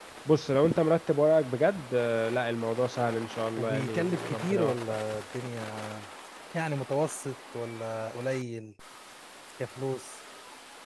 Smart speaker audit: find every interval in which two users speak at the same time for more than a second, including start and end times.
3.6-5.0

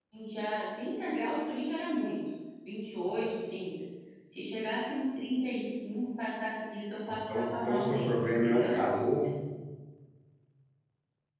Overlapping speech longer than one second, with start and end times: 7.1-8.8

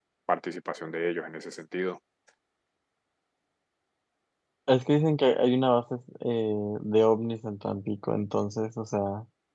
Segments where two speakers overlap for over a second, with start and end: none

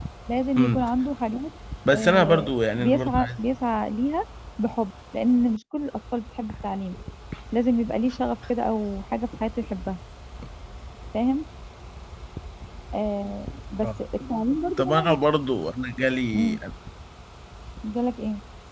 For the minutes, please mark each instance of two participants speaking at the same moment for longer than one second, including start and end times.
1.9-3.3

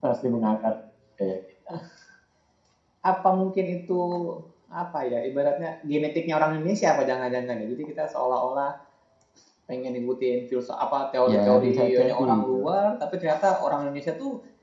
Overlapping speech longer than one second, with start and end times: 11.3-12.6

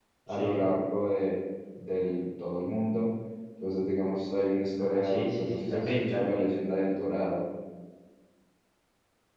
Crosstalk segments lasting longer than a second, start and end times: 4.8-6.4

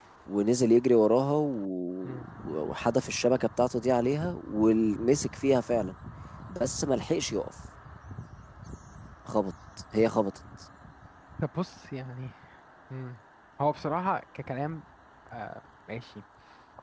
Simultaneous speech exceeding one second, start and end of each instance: none

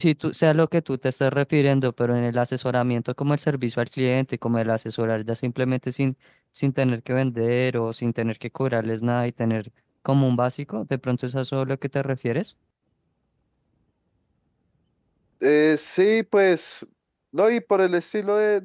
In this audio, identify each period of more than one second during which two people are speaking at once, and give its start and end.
none

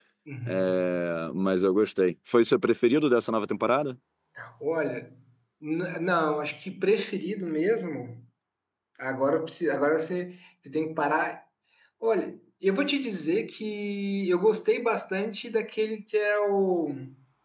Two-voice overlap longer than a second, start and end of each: none

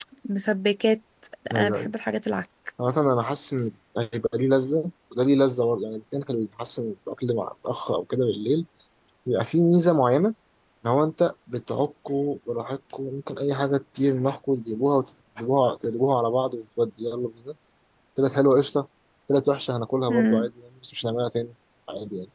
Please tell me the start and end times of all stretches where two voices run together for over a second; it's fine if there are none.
none

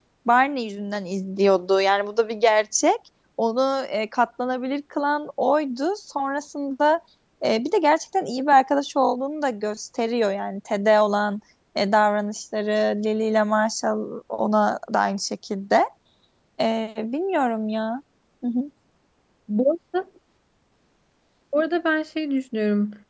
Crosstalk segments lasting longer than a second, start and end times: none

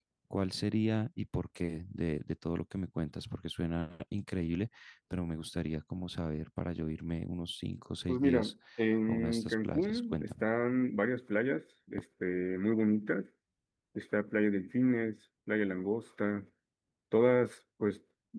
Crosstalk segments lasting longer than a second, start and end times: 9.1-10.4

